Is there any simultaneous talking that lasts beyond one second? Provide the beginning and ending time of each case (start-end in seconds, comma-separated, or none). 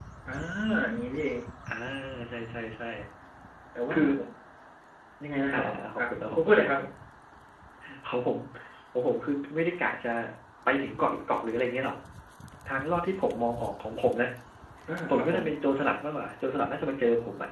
5.5-6.8